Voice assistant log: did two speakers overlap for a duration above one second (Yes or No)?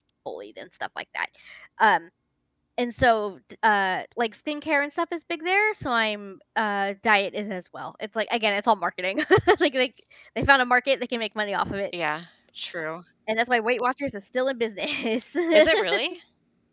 No